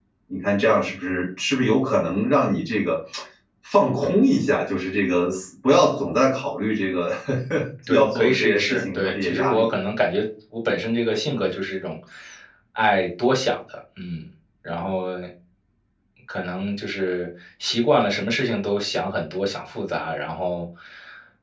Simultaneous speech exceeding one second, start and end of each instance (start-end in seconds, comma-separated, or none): 7.9-9.7